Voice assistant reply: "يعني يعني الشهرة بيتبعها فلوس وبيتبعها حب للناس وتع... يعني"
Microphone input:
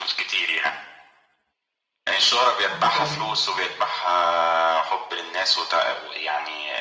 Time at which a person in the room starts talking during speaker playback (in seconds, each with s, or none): 2.7 s